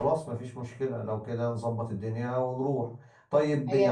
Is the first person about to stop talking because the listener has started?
No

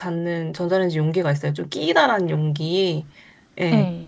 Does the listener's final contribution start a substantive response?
No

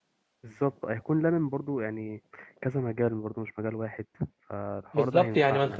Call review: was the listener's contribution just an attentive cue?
No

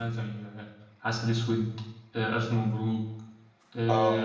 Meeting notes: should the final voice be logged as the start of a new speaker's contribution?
No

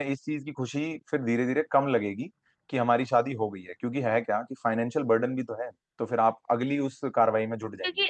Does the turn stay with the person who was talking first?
No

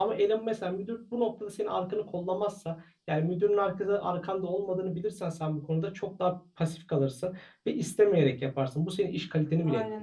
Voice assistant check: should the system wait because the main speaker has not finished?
No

